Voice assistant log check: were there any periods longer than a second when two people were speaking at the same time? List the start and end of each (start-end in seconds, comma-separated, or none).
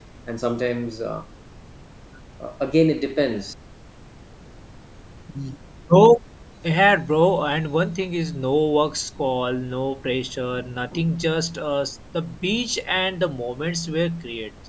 none